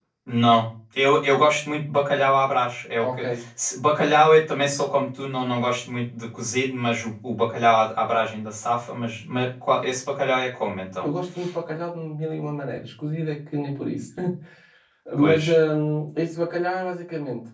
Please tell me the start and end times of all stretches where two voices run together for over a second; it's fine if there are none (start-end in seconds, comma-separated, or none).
none